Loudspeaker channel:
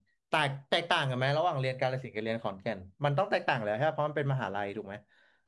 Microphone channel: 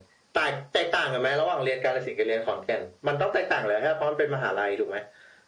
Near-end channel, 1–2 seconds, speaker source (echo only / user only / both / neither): echo only